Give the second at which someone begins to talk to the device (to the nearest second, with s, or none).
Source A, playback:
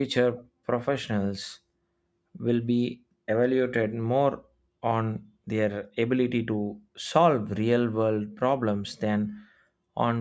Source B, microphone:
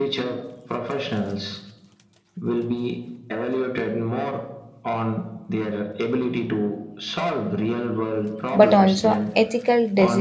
9 s